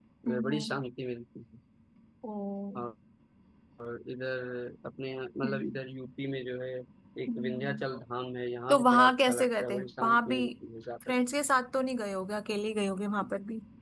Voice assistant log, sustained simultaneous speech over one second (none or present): present